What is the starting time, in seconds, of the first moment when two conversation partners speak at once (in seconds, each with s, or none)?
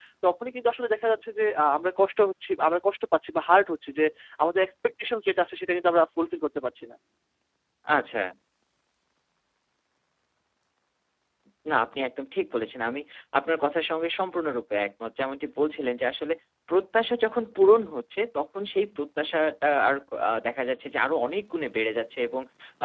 none